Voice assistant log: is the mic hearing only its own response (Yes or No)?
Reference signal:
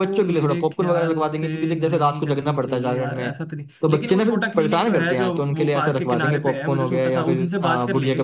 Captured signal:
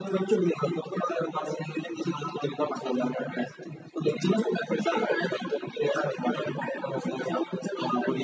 Yes